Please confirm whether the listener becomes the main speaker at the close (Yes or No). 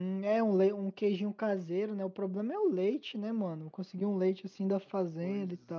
Yes